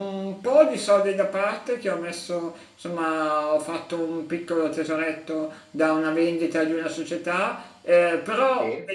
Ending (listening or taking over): listening